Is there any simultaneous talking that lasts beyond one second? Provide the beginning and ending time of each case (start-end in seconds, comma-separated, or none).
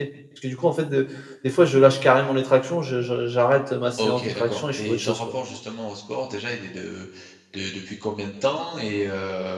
4.0-5.4